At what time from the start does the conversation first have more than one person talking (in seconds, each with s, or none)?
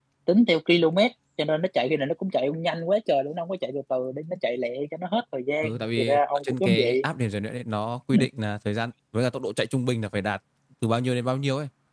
5.6 s